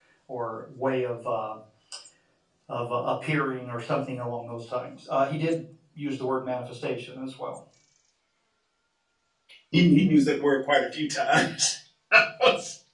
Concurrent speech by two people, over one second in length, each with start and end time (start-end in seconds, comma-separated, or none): none